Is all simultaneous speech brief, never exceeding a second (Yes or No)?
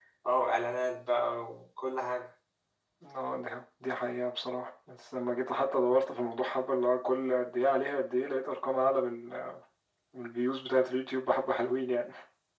Yes